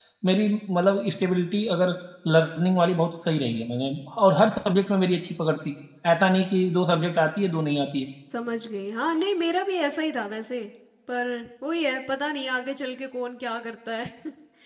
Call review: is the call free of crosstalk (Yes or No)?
Yes